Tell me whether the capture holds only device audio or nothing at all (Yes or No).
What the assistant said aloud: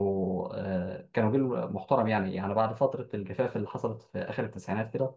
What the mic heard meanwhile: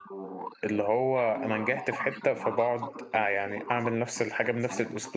No